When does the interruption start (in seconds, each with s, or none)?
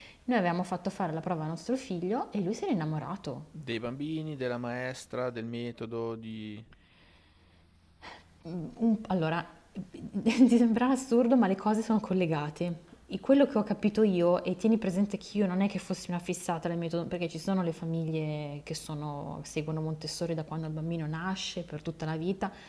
none